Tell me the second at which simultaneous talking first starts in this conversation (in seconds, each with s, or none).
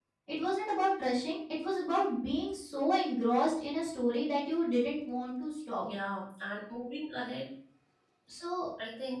none